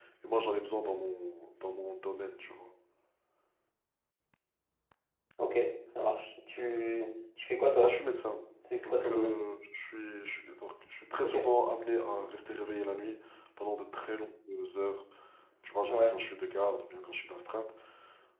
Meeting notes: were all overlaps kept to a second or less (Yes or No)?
Yes